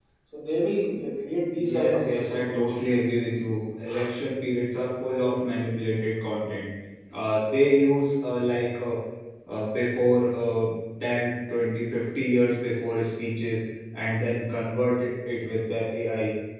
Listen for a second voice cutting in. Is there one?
Yes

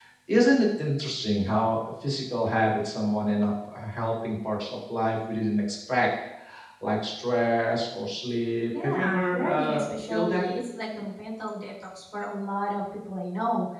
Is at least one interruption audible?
Yes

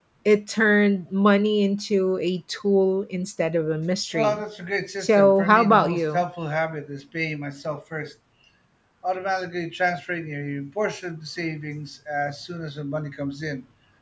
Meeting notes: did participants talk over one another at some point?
Yes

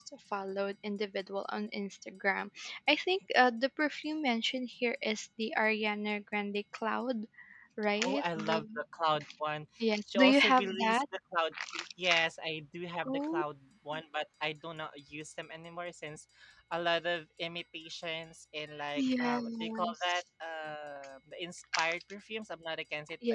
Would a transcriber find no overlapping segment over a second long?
No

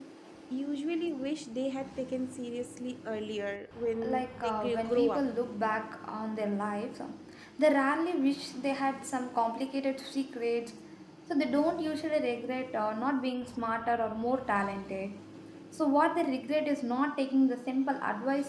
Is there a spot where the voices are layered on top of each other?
Yes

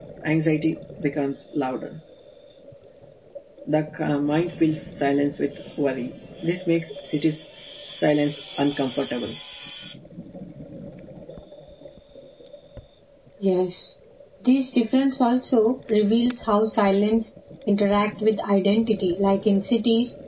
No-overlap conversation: Yes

